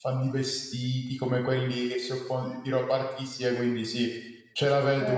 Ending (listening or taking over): taking over